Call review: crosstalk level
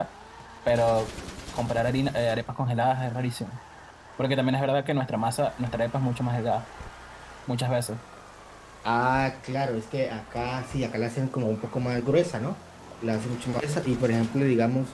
none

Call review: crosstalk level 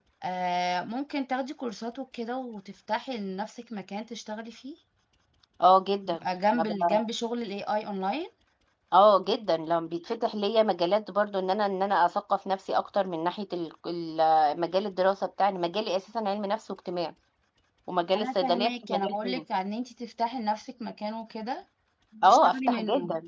present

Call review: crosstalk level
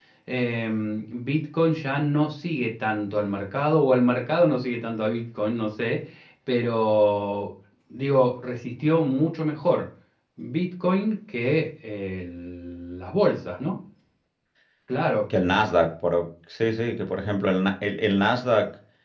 none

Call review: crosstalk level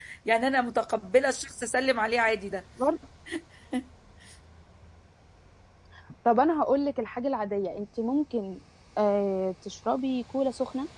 none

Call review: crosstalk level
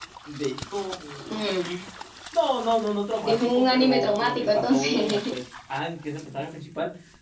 present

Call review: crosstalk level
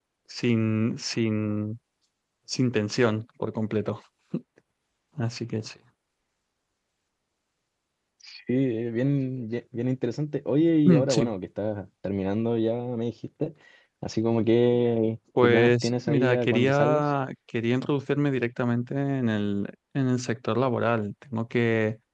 present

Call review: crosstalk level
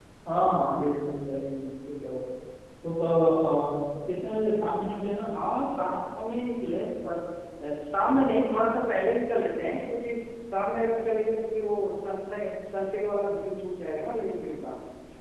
none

